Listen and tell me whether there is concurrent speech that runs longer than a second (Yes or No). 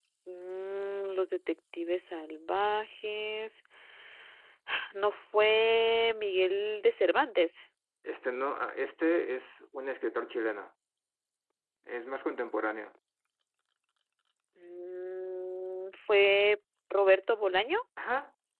No